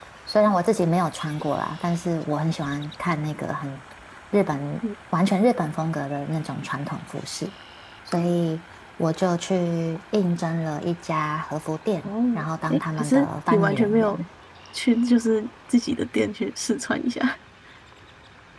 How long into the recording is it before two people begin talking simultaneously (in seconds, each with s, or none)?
12.0 s